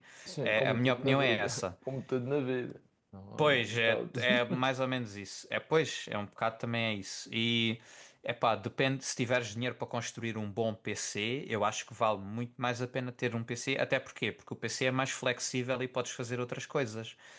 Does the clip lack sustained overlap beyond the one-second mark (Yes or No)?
No